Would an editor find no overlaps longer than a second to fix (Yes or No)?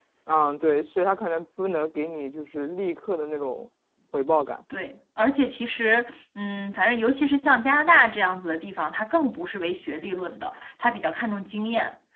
Yes